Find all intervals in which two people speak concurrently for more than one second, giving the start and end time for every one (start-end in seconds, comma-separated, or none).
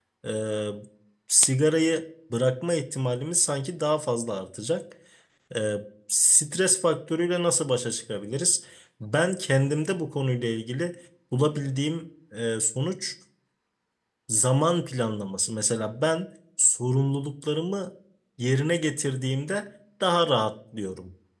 none